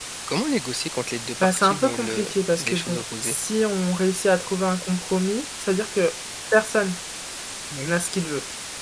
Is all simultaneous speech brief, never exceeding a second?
No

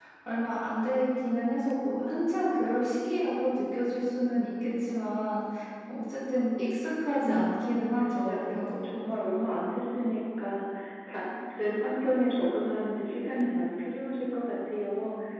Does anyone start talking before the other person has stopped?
Yes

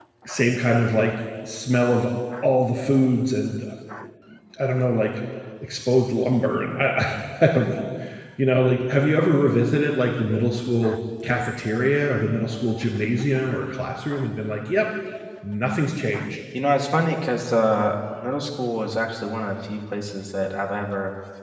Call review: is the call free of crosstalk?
Yes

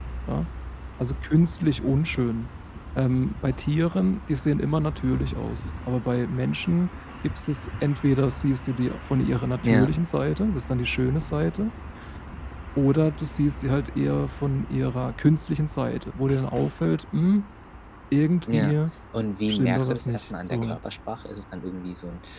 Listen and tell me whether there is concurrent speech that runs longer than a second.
Yes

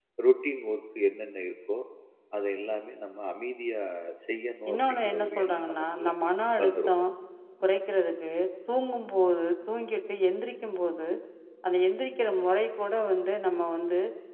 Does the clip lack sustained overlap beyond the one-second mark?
No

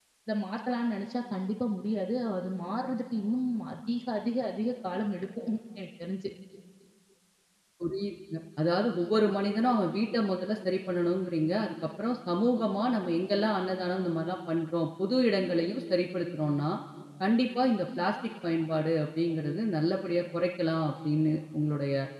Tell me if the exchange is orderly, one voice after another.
Yes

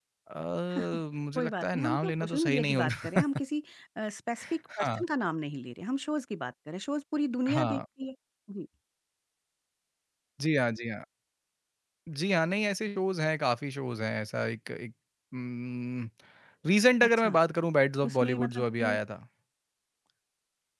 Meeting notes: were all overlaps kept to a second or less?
No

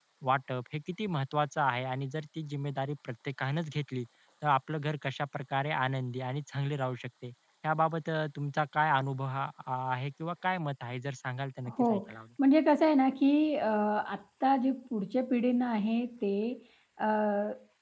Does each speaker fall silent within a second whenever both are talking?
Yes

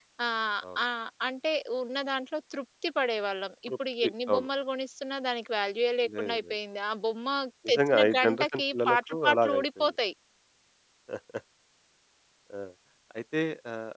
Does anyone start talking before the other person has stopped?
Yes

